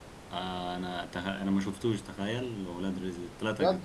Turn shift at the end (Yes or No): Yes